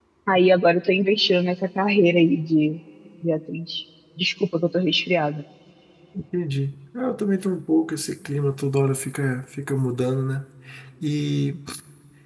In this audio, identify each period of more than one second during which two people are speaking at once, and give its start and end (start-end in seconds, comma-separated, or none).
none